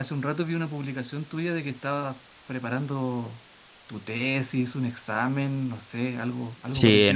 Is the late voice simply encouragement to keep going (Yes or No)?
No